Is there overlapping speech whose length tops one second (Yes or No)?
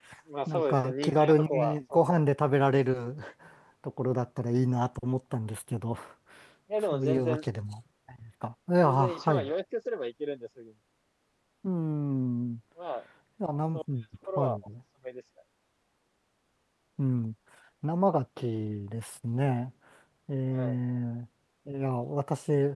Yes